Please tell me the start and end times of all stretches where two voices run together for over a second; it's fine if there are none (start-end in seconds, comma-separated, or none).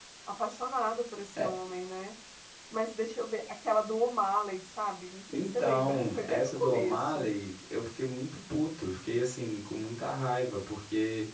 5.3-7.3